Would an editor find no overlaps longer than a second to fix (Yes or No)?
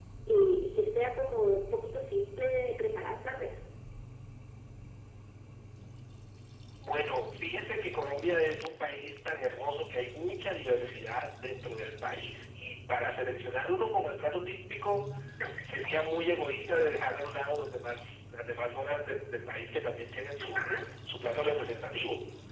Yes